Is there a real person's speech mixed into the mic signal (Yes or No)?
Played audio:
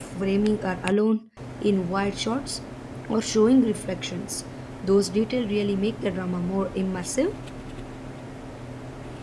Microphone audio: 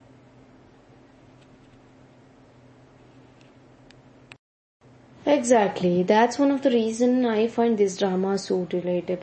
Yes